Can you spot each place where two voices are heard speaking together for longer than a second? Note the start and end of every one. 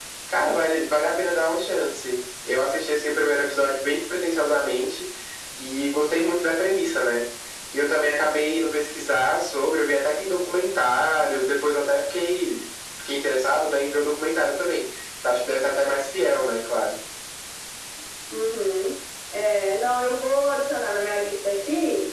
none

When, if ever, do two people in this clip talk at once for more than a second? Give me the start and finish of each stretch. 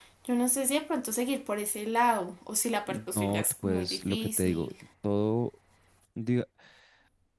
2.9-4.7

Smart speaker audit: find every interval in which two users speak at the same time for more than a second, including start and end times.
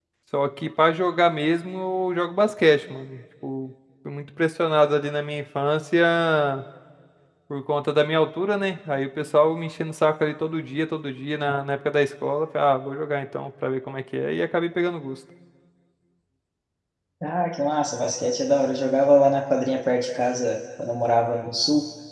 none

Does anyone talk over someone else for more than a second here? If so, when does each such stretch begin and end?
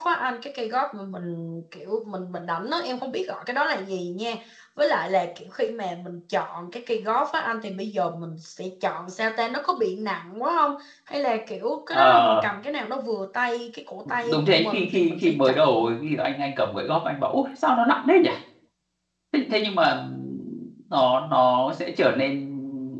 14.3-15.6

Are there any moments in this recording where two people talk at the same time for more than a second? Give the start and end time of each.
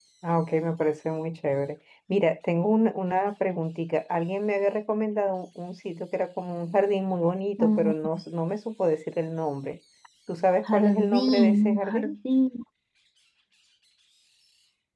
10.7-12.2

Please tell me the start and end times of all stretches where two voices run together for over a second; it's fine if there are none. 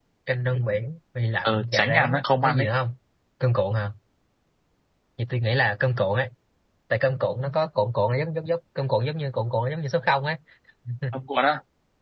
1.4-2.7

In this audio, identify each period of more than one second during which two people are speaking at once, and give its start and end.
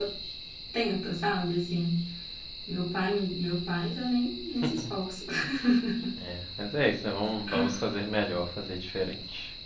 none

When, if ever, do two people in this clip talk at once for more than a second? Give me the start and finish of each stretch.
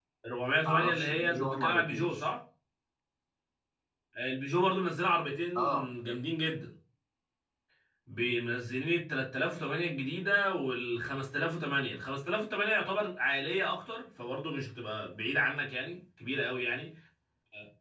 0.6-2.2

